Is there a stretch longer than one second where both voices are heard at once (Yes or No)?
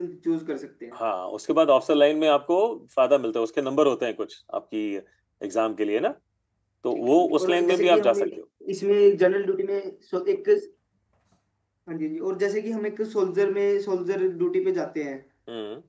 Yes